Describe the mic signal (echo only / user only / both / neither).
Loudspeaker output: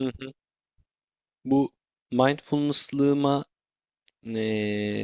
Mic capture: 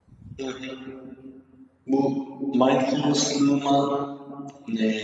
echo only